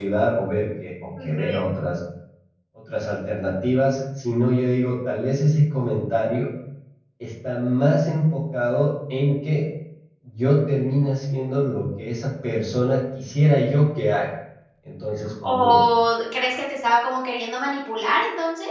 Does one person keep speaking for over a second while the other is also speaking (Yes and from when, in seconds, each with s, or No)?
No